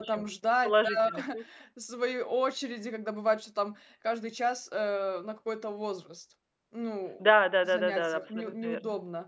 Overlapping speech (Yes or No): Yes